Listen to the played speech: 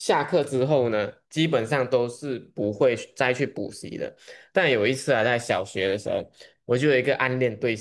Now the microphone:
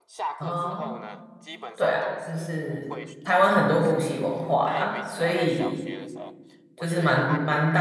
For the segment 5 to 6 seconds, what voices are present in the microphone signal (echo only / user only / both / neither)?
both